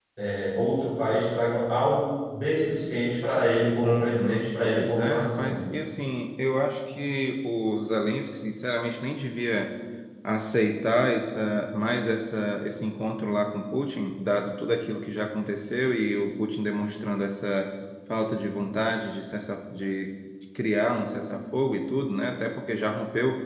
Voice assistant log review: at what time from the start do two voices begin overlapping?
3.8 s

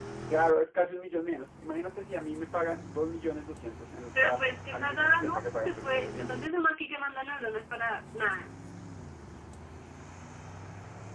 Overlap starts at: 4.2 s

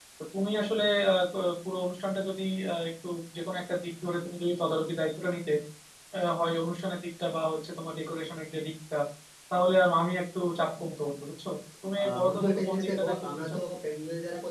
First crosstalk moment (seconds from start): 12.0 s

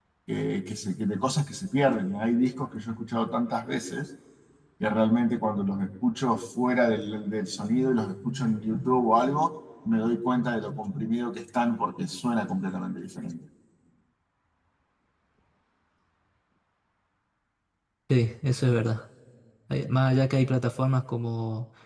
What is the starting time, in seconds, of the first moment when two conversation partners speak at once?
none

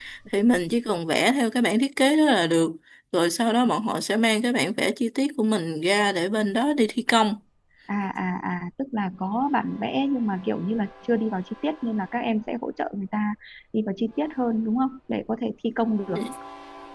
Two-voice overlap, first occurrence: none

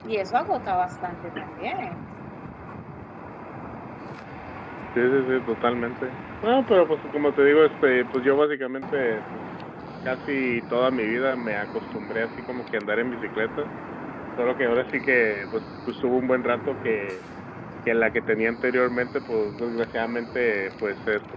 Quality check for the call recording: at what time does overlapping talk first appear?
none

